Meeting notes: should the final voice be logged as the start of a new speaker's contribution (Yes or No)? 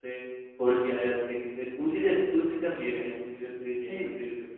No